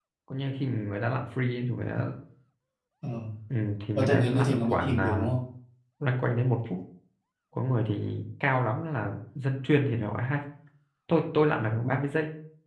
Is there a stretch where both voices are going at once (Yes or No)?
Yes